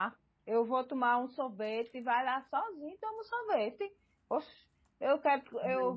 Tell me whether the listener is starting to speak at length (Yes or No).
No